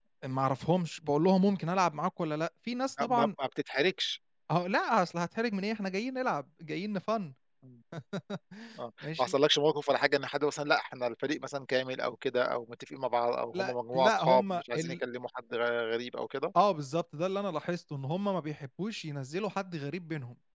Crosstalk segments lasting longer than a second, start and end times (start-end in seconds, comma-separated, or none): 13.5-14.9